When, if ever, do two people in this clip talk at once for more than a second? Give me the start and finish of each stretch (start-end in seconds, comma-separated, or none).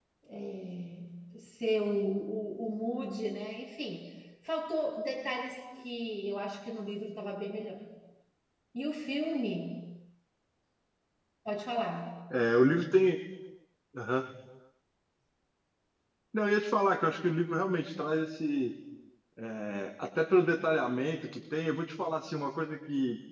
none